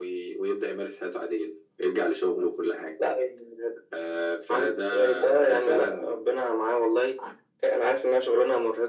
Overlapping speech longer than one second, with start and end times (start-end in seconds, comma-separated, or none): 4.5-6.2